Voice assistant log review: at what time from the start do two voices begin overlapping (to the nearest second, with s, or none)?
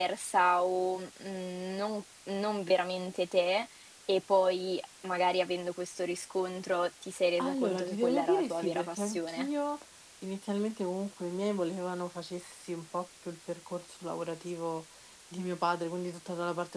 7 s